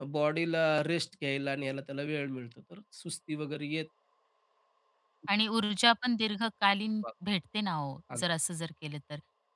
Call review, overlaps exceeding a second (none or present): none